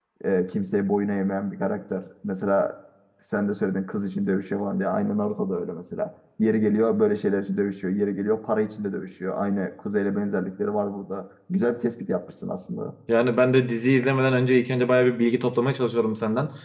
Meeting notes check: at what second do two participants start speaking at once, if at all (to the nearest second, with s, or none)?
none